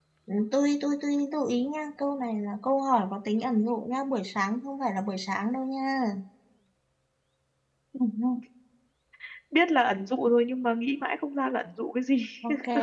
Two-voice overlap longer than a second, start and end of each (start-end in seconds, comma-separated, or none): none